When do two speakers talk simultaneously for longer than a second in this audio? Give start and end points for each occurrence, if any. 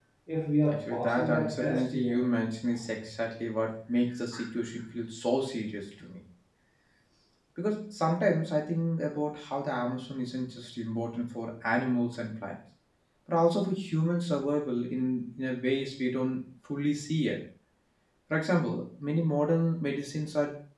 0.7-2.2

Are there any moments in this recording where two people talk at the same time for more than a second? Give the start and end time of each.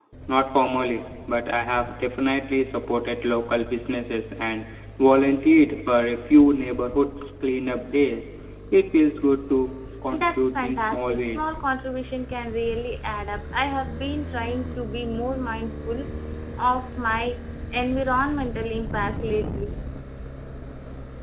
10.1-11.4

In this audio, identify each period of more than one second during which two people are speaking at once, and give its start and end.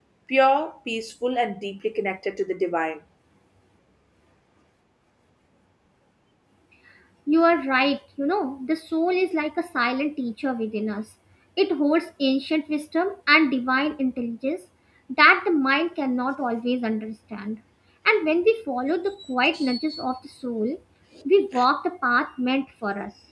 none

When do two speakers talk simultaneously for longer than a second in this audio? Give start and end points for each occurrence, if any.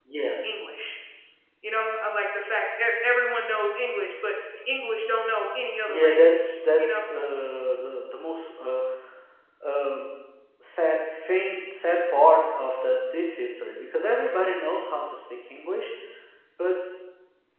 5.9-7.1

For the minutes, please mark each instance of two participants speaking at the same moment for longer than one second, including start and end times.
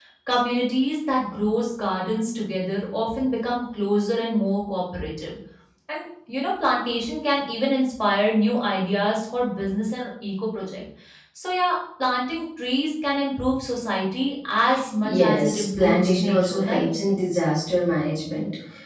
15.0-16.9

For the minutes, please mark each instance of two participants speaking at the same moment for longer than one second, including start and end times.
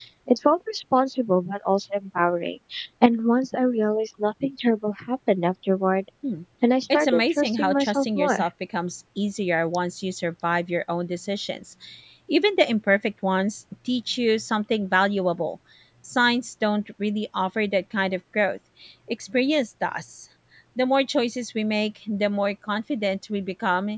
6.9-8.4

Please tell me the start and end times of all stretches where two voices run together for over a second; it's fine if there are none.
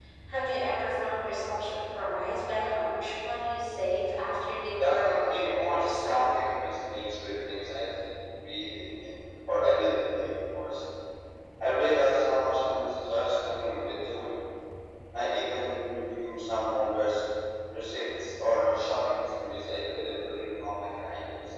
4.8-6.2

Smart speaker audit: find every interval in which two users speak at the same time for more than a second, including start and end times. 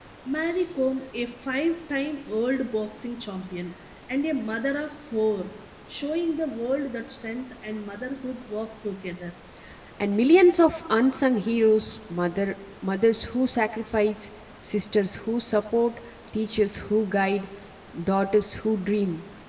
none

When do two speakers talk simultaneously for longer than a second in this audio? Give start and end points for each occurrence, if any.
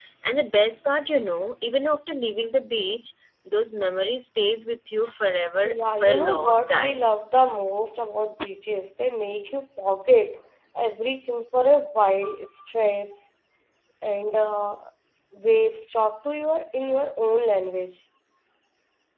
5.6-7.0

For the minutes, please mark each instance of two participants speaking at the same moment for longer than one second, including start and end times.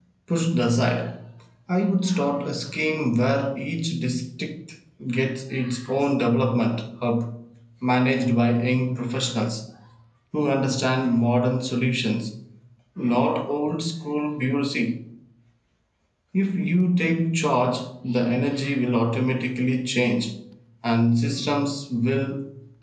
none

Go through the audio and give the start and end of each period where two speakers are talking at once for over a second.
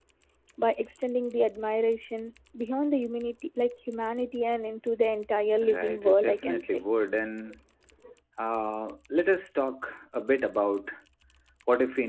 5.6-6.9

